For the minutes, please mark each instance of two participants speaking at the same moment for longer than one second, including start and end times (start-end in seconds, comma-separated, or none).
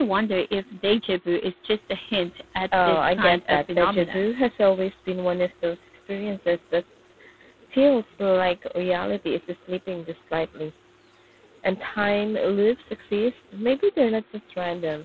2.8-4.3